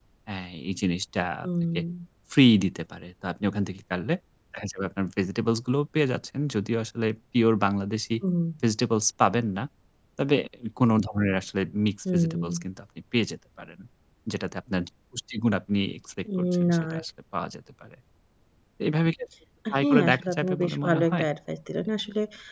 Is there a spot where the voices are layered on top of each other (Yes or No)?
Yes